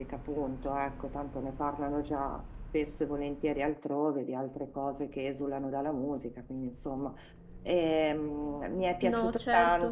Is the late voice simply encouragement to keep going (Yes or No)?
Yes